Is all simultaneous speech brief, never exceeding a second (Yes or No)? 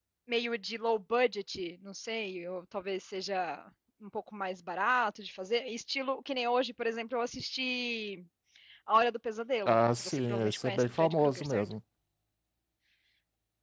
No